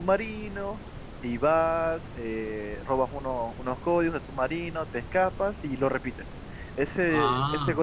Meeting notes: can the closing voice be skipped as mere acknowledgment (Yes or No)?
Yes